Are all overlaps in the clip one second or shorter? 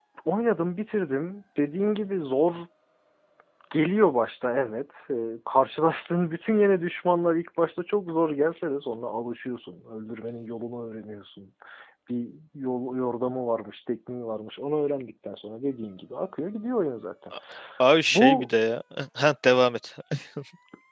Yes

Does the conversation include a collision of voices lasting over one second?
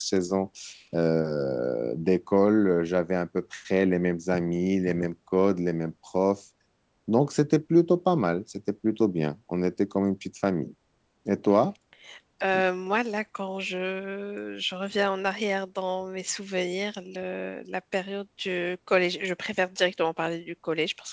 No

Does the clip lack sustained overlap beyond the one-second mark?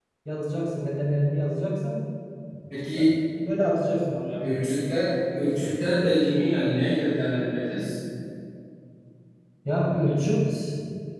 Yes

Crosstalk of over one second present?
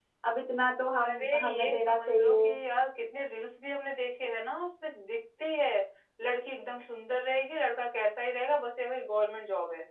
Yes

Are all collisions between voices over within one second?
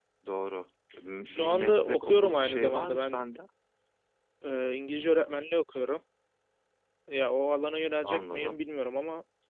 No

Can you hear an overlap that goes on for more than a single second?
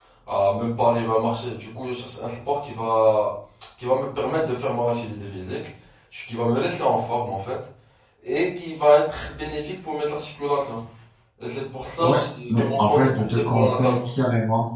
Yes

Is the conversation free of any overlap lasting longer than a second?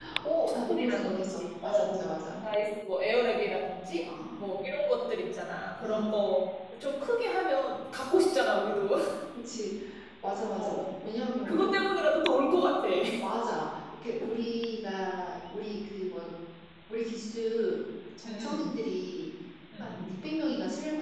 No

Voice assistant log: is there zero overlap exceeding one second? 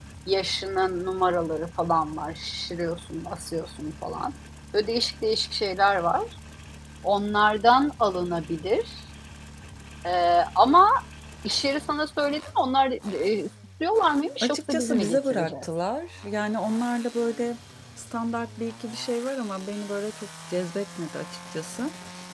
No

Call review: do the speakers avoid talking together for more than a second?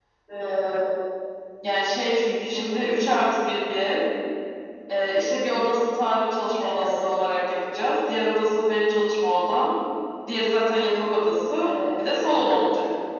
Yes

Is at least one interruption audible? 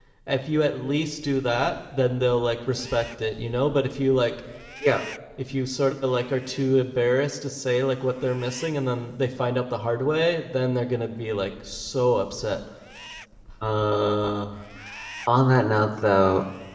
No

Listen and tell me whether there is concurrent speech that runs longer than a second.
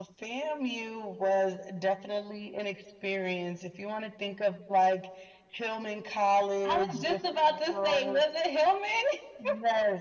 Yes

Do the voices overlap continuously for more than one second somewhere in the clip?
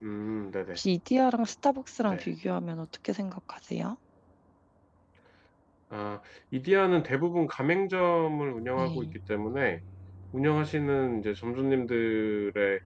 No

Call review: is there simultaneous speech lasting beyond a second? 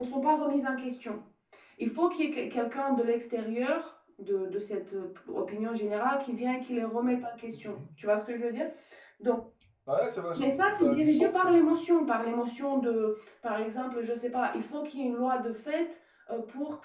Yes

